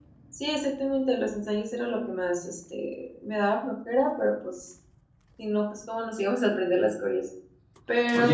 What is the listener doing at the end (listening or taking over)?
taking over